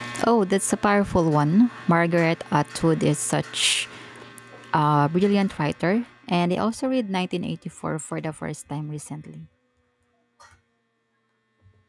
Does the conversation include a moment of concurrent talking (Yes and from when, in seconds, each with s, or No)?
No